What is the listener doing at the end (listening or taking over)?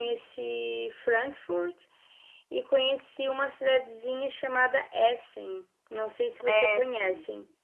taking over